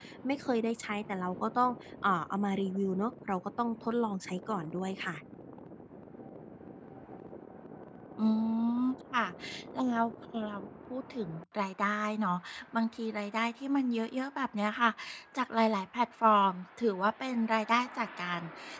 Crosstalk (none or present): none